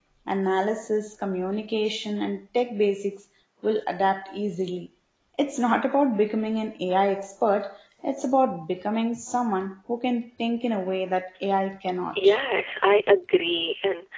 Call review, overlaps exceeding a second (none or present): none